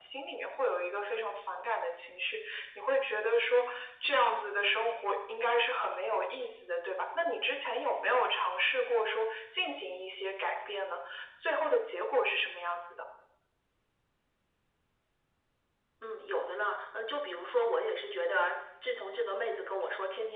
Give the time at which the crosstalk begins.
none

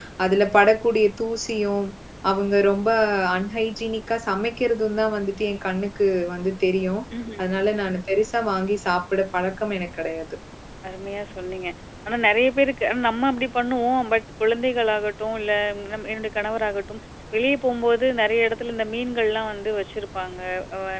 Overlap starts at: none

